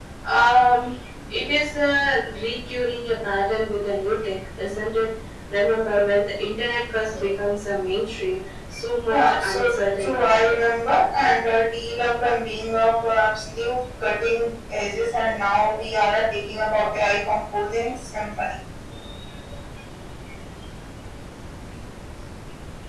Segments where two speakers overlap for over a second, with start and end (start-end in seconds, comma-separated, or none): 9.1-10.5